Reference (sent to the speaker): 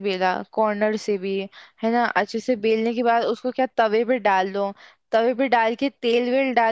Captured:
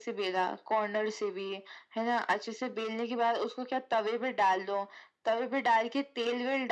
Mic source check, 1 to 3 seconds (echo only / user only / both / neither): echo only